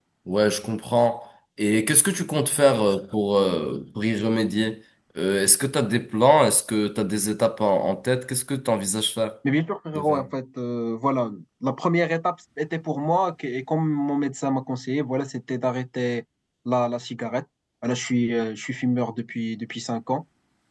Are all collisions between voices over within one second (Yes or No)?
Yes